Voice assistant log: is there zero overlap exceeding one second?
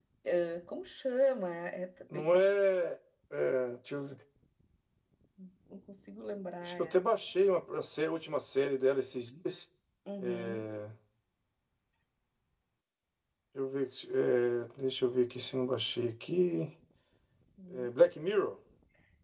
Yes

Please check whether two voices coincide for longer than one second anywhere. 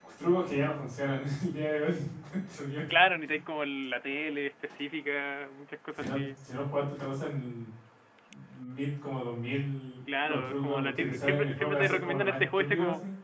Yes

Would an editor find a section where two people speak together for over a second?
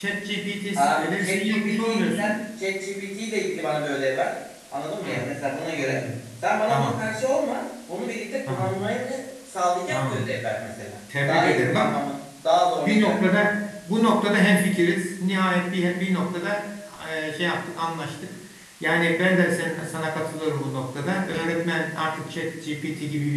Yes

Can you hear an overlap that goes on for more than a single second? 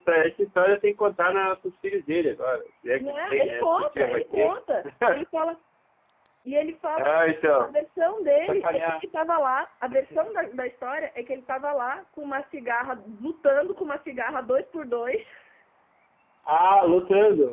Yes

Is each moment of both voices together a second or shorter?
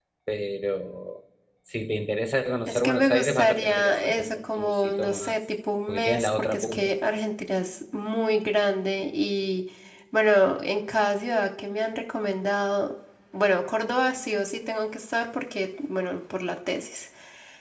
No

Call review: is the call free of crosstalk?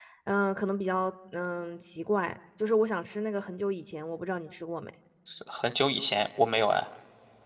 Yes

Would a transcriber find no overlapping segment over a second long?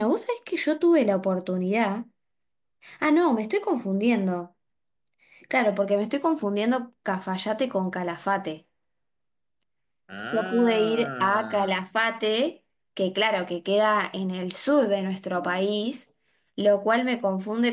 No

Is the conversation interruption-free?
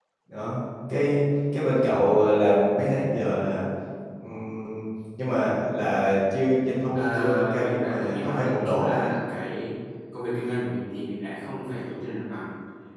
No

